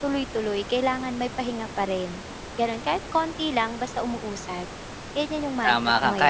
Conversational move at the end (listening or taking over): taking over